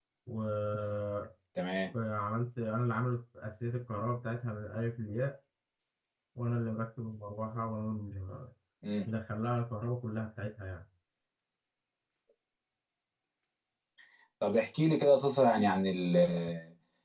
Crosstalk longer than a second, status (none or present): none